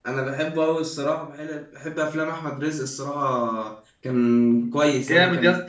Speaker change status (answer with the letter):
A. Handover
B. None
A